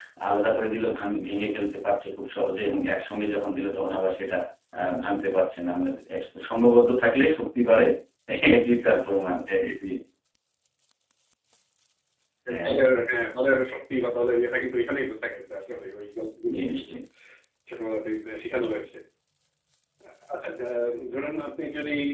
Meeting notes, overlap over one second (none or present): none